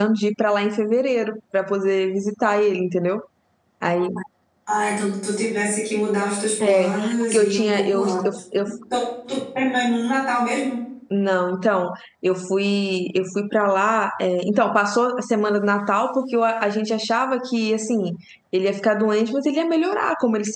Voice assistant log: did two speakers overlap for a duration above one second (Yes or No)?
Yes